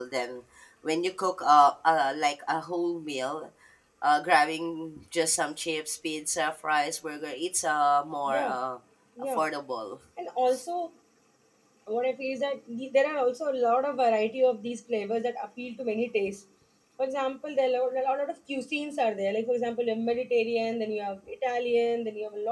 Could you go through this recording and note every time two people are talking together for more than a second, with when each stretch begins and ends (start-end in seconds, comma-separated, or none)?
none